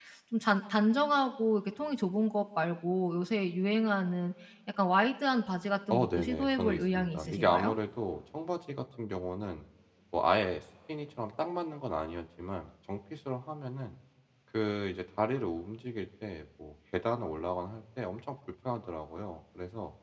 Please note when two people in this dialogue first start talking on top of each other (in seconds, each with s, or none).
5.9 s